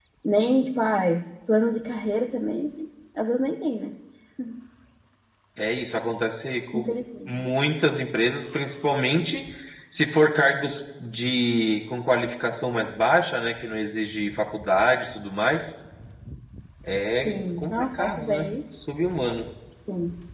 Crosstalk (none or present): present